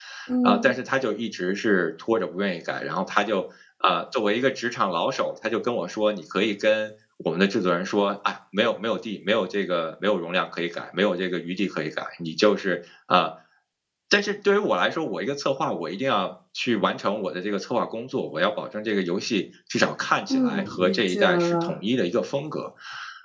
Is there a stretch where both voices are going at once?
Yes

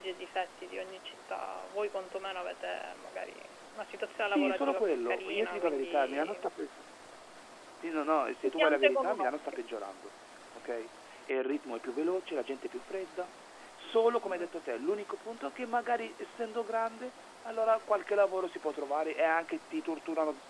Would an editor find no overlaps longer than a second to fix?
No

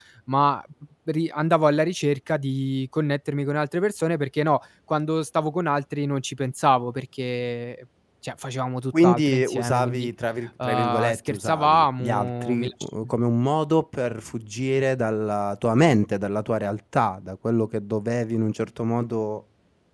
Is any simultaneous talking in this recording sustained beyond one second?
Yes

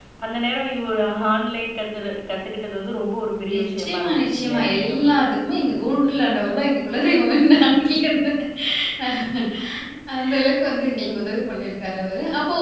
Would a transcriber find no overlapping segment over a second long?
No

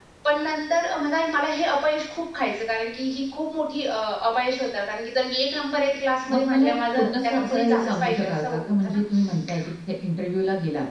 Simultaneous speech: Yes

